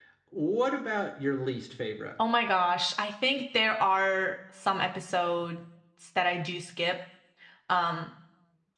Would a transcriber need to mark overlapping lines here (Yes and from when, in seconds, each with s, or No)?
No